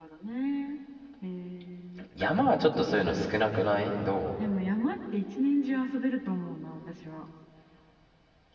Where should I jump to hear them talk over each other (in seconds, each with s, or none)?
none